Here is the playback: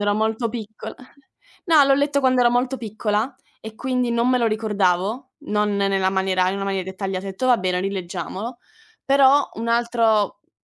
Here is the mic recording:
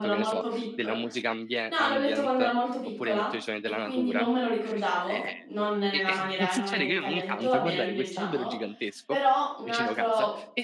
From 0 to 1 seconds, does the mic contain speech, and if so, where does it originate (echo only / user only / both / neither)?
both